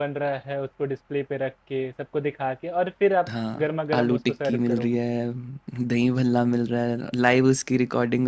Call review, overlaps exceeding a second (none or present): present